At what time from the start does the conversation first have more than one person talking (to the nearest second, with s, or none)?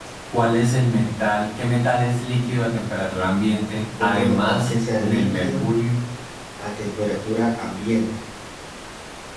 4 s